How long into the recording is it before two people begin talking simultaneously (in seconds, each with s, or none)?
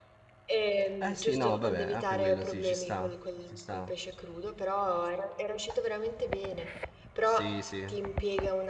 1.0 s